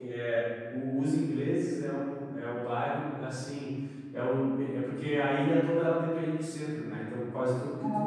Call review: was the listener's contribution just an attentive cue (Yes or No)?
Yes